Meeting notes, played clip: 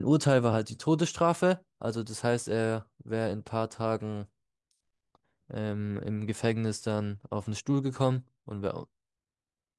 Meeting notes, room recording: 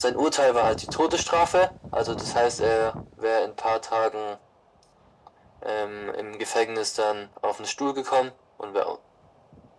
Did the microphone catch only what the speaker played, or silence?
Yes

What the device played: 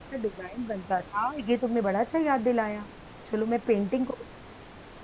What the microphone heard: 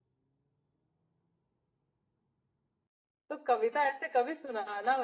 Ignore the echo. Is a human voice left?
Yes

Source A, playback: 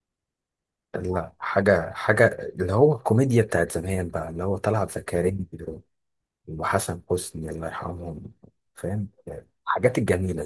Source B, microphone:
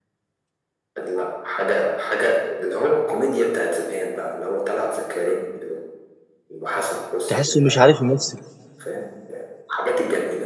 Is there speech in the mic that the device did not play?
Yes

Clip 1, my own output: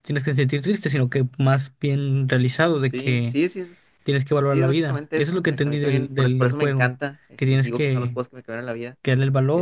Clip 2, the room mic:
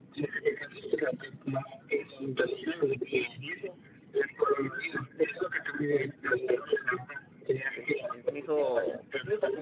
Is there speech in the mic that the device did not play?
Yes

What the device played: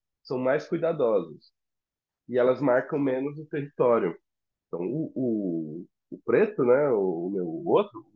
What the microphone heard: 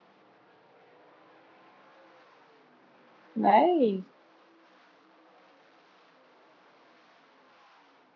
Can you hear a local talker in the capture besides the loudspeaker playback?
Yes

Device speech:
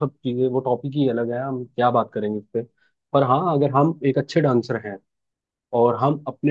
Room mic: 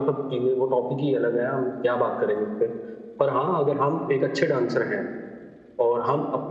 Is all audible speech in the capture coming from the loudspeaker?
Yes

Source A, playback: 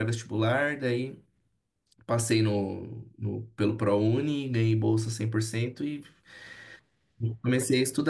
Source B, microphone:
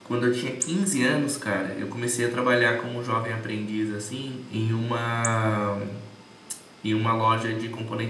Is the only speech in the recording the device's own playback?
No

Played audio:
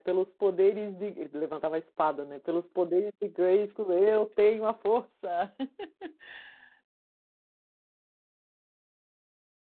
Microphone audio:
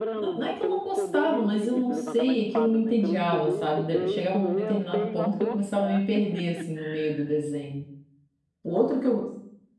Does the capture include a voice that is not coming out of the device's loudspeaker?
Yes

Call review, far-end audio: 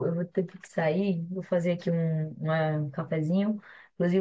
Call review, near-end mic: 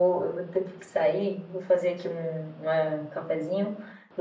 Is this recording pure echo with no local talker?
Yes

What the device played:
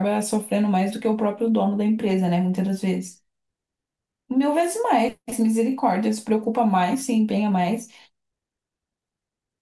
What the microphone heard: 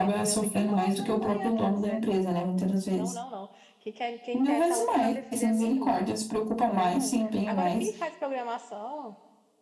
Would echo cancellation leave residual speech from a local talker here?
Yes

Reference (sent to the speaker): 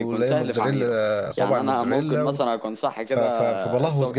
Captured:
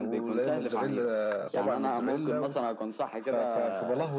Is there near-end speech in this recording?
No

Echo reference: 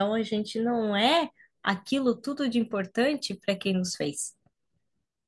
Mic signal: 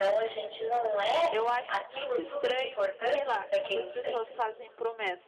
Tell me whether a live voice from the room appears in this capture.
Yes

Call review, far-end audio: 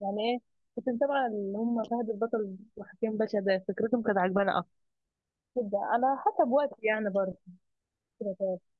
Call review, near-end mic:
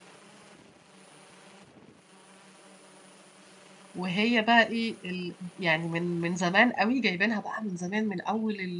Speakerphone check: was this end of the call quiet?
No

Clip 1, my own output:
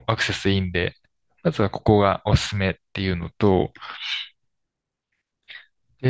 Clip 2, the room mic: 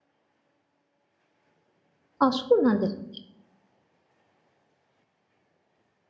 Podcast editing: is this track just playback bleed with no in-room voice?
No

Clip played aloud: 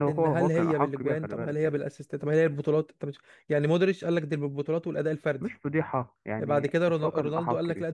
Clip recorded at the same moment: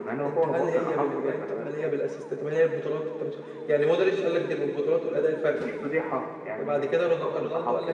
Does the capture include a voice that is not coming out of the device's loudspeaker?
No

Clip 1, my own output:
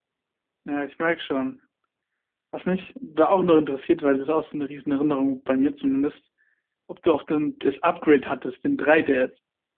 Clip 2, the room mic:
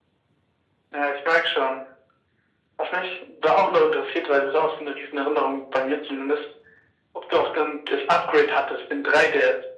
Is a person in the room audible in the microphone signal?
No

